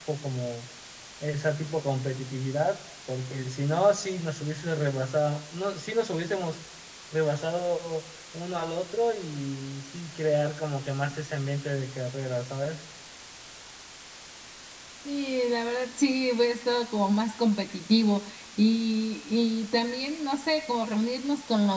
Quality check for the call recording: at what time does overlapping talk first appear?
none

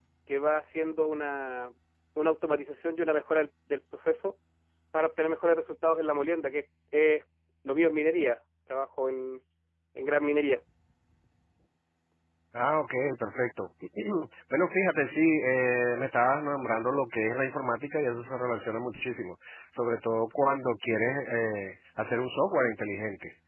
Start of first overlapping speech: none

